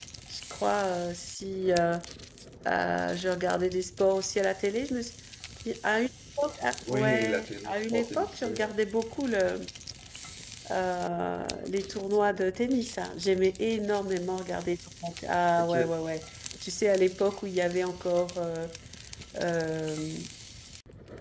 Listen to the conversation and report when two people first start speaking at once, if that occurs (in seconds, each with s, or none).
6.9 s